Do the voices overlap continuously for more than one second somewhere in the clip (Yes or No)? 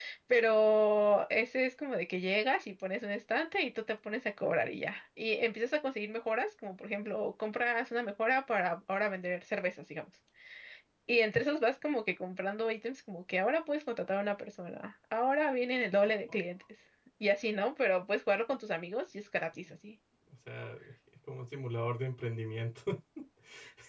No